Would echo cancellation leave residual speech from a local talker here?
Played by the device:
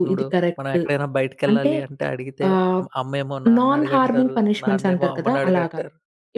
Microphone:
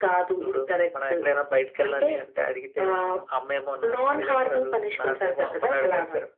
No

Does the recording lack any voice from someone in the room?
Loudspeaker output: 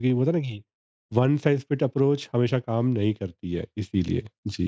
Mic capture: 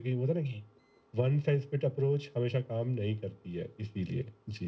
Yes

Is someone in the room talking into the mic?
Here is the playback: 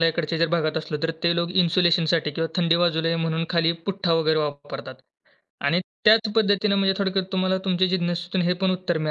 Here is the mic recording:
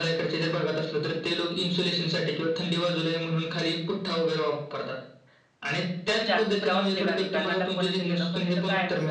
Yes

